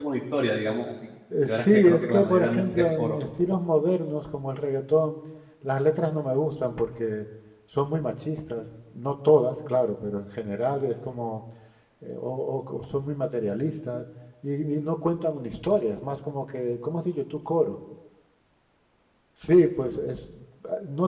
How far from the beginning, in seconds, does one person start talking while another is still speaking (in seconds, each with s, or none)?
1.3 s